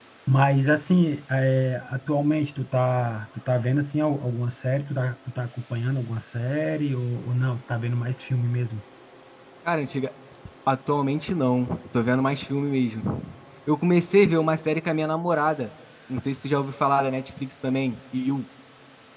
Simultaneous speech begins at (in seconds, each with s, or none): none